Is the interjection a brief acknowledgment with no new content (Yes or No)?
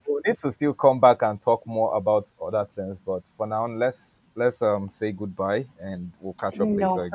No